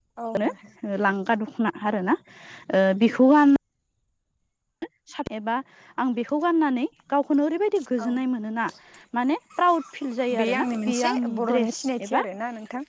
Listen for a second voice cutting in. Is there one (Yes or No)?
Yes